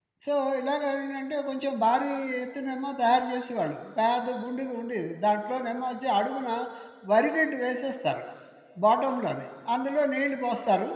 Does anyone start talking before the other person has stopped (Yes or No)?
No